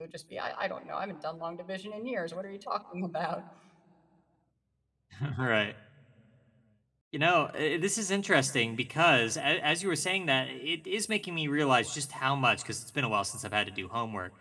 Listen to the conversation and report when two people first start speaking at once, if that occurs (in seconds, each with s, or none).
none